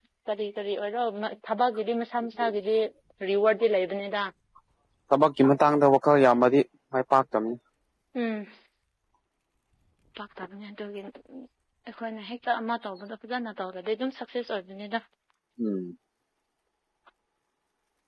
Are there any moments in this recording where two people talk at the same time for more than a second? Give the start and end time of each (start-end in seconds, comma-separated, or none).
none